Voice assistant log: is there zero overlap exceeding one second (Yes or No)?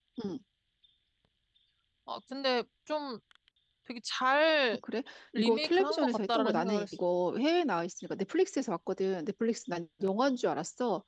No